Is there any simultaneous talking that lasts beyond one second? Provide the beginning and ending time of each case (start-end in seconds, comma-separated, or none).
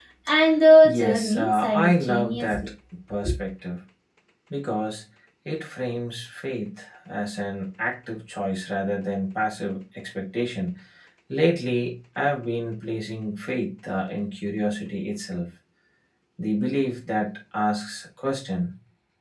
0.8-2.7